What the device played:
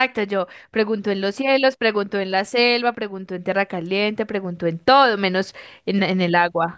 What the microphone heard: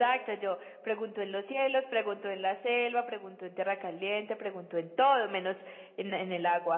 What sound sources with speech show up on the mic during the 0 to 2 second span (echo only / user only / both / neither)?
echo only